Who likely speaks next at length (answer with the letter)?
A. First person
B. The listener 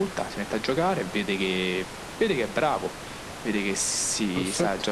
A